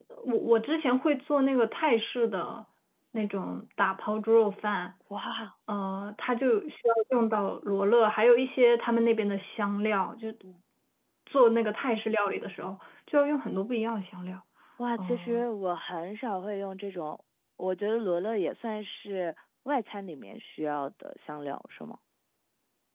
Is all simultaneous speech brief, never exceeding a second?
Yes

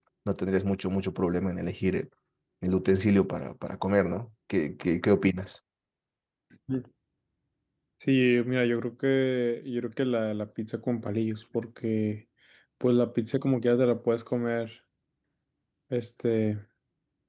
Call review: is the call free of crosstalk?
Yes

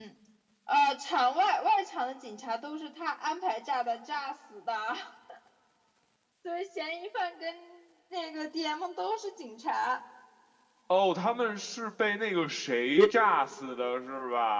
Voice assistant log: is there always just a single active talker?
Yes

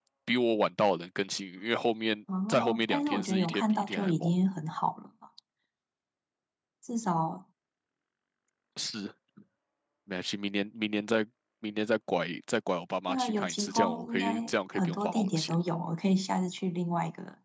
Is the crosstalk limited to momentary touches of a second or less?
No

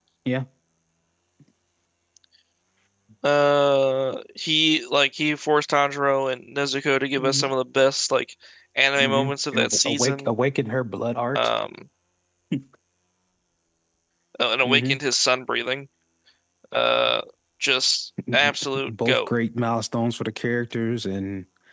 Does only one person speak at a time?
No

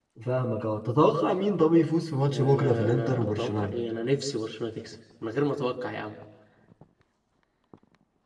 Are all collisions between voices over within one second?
No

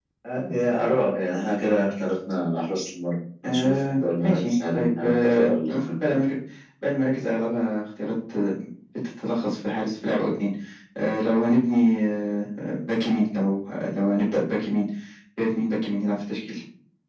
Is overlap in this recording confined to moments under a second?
No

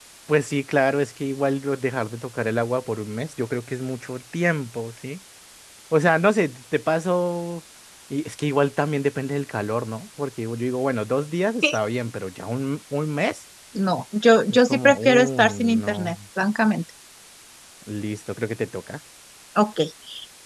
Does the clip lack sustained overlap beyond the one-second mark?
No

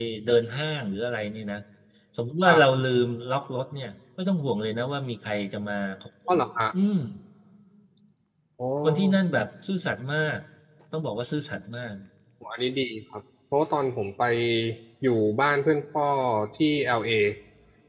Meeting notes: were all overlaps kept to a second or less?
Yes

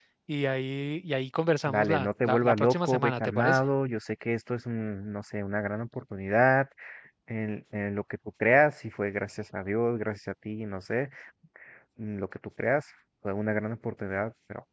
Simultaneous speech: Yes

